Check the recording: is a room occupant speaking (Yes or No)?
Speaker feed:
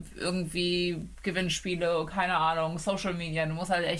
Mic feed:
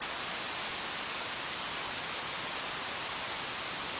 No